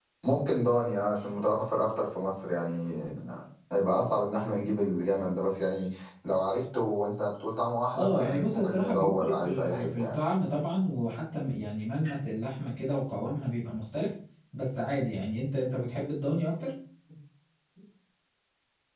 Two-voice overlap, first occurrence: 8 s

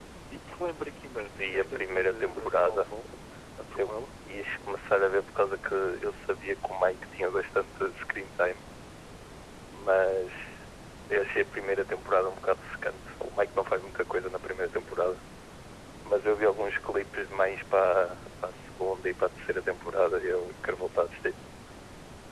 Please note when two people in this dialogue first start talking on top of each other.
1 s

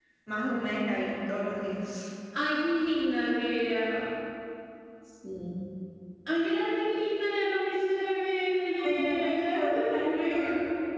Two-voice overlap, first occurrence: 9 s

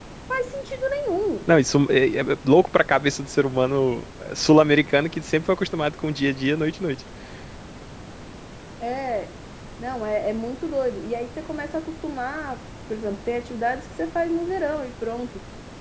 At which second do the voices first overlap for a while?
none

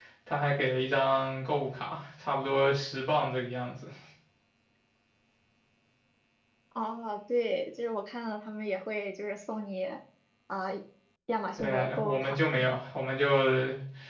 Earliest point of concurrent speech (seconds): 12 s

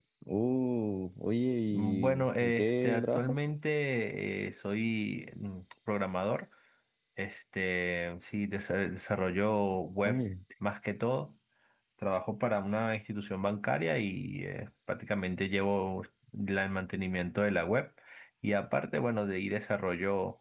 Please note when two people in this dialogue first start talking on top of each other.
2 s

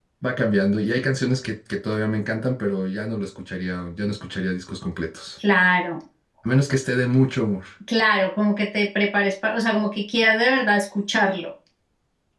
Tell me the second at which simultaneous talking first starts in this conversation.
none

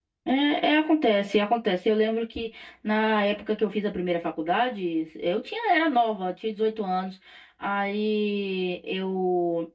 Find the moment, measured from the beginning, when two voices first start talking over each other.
none

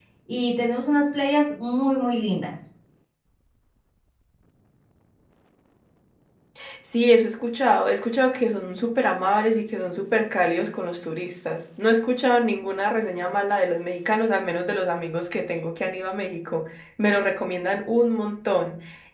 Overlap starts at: none

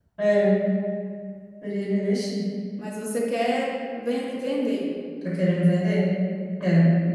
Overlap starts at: none

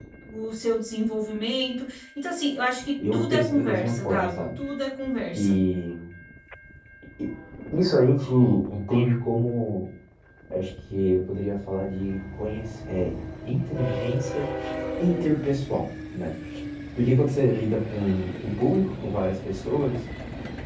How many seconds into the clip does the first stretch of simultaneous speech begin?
3 s

